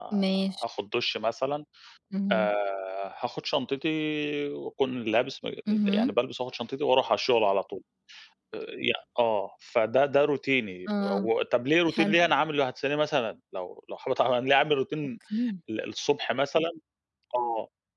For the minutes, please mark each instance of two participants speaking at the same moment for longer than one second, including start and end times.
none

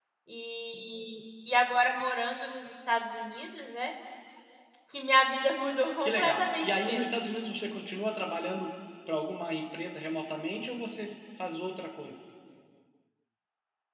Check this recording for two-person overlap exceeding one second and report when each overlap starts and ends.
6.0-7.2

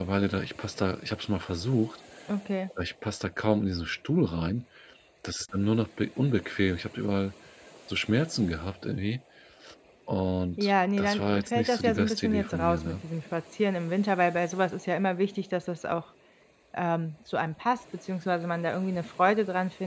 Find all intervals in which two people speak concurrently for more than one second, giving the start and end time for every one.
10.6-13.0

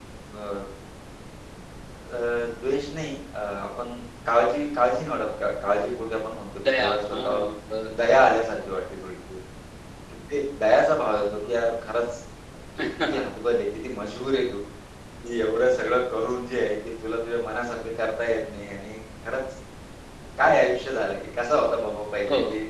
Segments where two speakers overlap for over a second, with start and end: 6.6-8.0

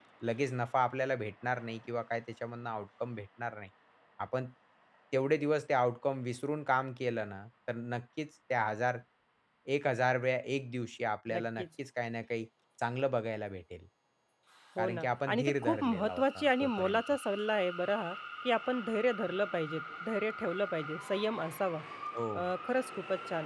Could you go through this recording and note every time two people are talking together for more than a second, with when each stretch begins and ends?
14.8-17.0

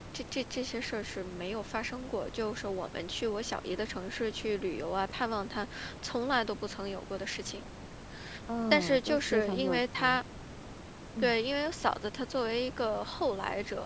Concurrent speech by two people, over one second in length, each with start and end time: 8.7-10.2

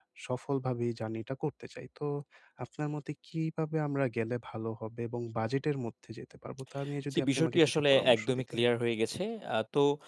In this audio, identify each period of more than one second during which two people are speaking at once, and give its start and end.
7.1-8.6

